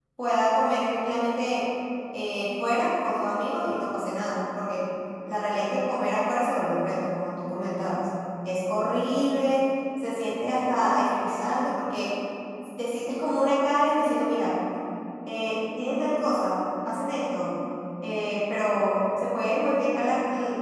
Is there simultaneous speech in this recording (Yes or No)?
No